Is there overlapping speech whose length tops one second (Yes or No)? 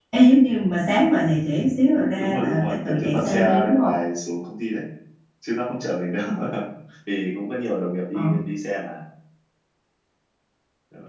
Yes